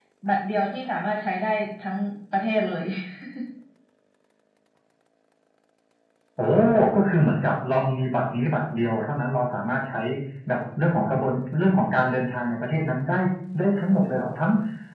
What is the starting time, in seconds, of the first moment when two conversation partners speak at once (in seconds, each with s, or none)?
none